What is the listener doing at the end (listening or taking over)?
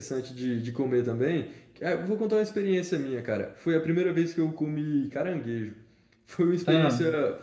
listening